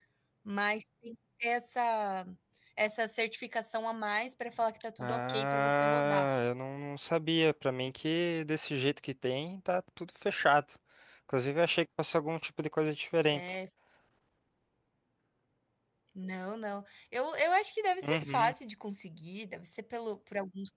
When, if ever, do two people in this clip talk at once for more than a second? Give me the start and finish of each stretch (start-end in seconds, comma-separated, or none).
5.0-6.3